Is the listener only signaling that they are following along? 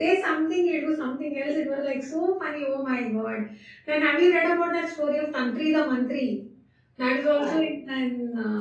Yes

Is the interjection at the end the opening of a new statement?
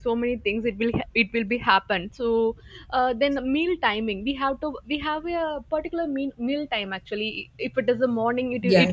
No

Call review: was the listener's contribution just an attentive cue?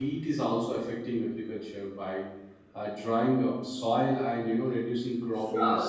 No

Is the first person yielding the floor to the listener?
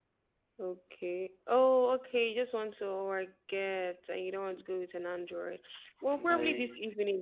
No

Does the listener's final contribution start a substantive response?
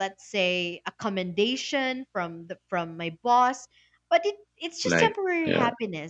No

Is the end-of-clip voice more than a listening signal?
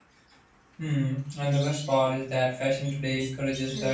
No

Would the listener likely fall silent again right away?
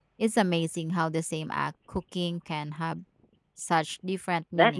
No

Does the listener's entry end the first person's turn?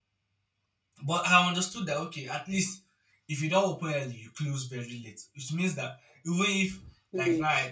No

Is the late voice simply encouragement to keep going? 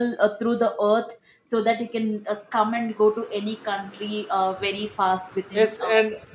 No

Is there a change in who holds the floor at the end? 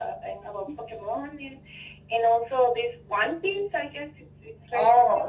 Yes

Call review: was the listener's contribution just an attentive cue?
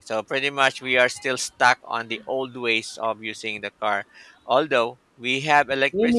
No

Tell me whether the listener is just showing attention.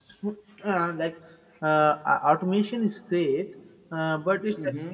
Yes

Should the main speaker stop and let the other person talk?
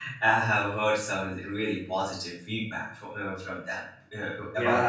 Yes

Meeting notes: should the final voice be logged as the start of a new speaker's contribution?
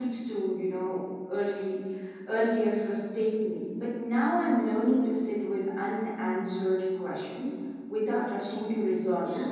Yes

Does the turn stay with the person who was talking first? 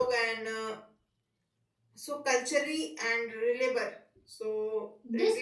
No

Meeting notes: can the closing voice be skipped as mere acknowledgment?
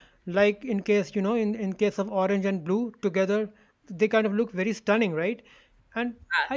Yes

